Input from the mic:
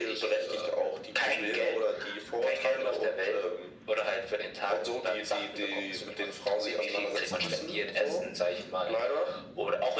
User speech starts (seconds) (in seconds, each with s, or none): 7.3 s